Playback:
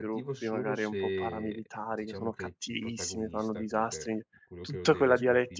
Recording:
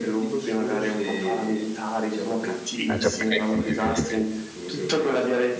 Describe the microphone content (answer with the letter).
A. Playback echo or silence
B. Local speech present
B